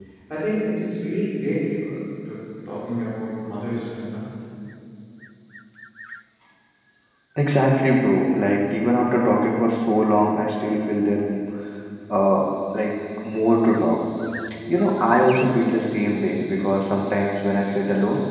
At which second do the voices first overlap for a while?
none

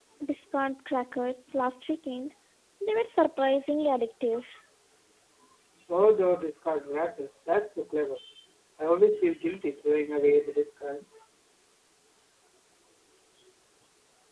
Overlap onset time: none

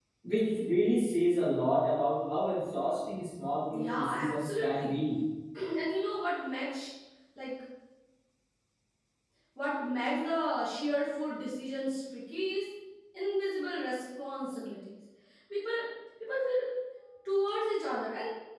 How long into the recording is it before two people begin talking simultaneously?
3.7 s

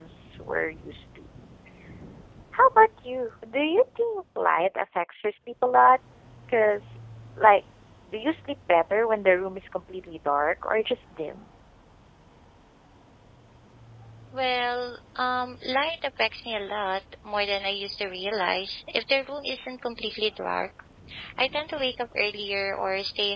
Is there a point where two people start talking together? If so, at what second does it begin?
none

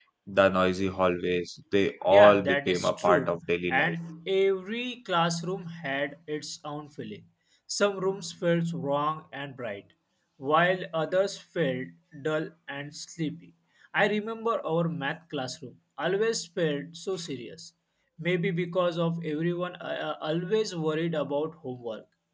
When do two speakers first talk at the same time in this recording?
2.1 s

